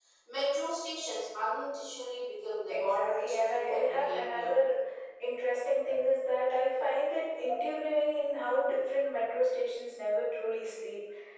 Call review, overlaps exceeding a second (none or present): present